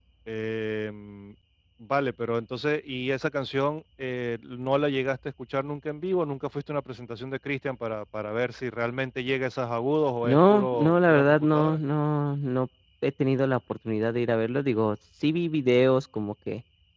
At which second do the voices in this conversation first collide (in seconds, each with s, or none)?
10.2 s